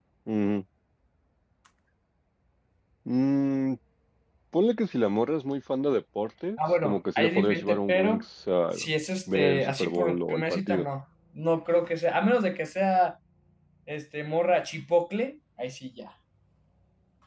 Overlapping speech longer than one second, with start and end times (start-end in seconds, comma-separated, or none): 6.8-8.2, 9.3-10.8